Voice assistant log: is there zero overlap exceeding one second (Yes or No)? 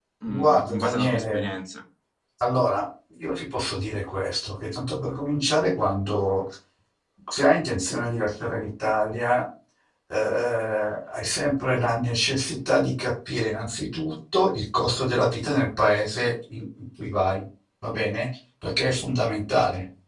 No